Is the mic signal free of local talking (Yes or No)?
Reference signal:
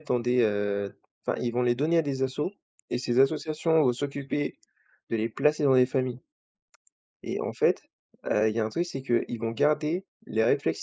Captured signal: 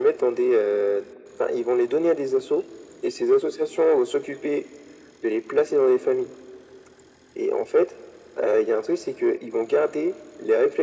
Yes